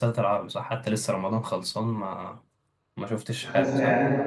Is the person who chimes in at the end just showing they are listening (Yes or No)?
No